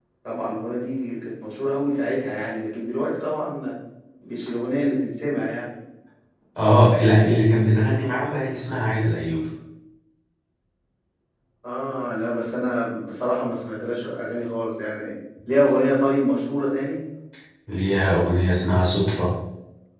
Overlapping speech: No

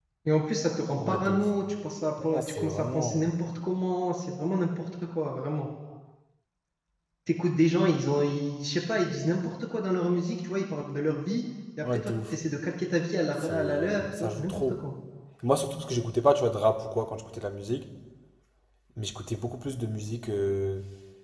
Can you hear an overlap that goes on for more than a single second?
Yes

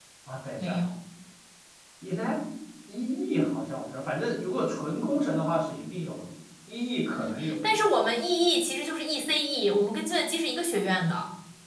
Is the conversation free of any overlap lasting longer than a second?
Yes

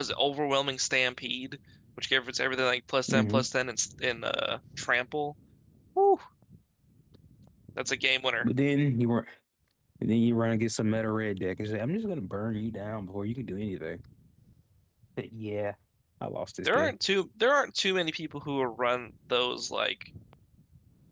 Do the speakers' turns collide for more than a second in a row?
No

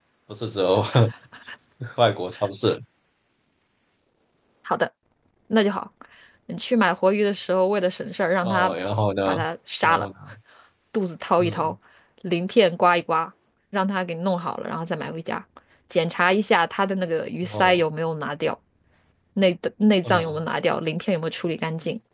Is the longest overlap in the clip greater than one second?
No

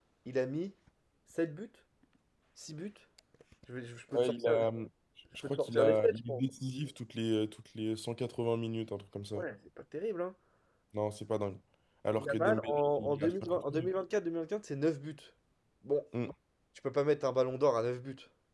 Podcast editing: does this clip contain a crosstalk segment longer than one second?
Yes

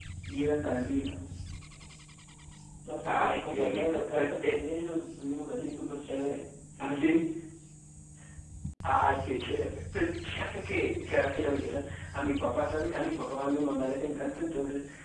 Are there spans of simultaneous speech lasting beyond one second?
Yes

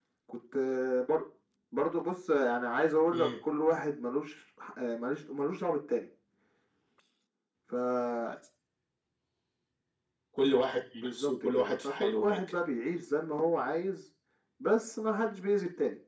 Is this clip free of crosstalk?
No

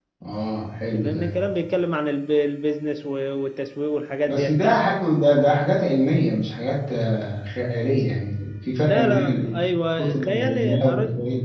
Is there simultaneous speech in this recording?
Yes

